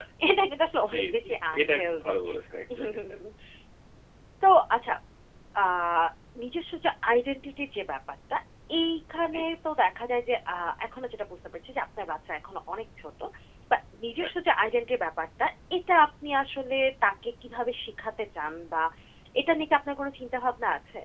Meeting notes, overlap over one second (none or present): present